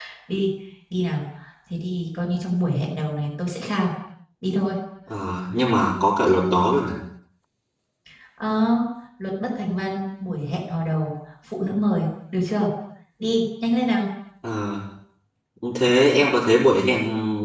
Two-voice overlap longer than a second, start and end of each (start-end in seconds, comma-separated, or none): none